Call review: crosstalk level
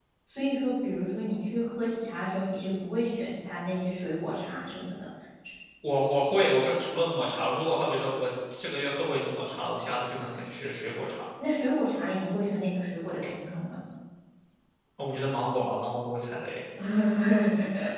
none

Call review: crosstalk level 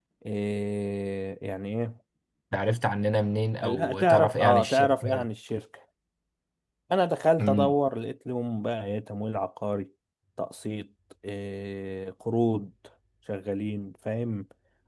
present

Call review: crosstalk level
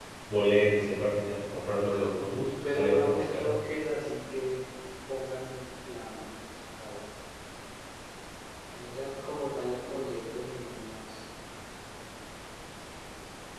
present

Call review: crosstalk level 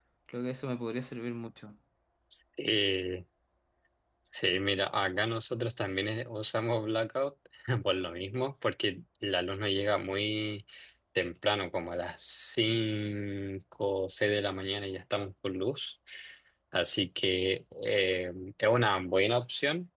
none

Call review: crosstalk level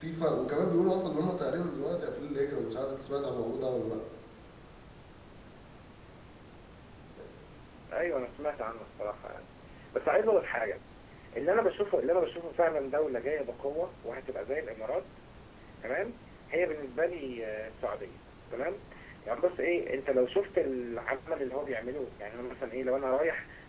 none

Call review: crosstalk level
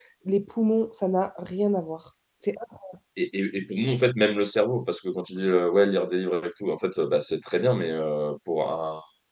none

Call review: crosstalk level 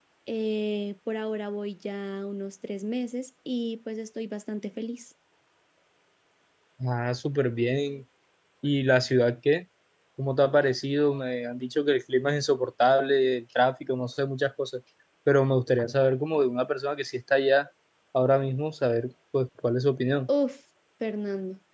none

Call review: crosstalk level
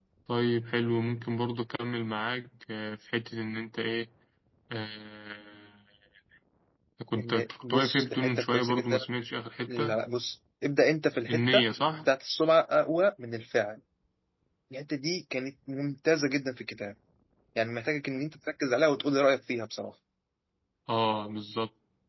present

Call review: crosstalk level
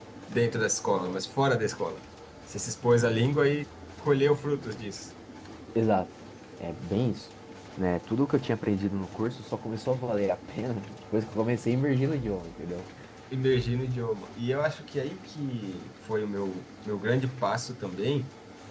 none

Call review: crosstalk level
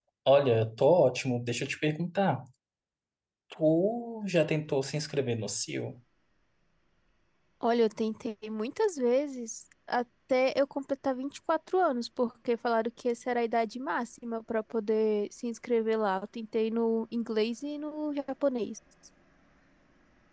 none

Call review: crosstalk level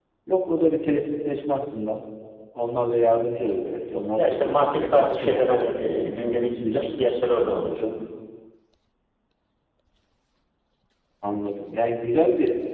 present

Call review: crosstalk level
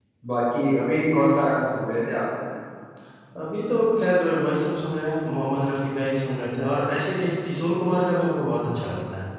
none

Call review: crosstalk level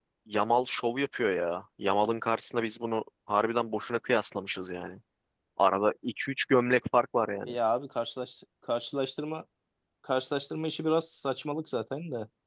none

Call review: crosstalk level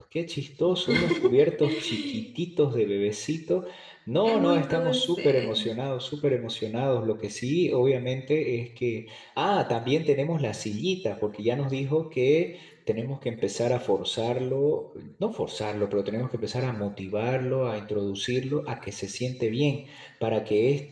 present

